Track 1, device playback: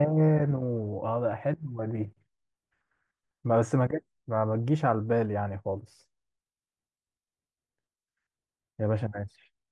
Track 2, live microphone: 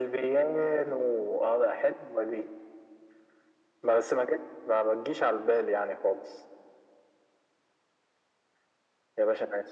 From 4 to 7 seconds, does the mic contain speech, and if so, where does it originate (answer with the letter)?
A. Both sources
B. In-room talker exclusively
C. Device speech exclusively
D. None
C